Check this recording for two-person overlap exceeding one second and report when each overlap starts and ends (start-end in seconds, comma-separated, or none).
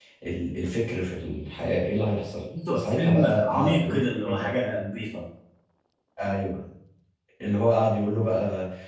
2.7-4.5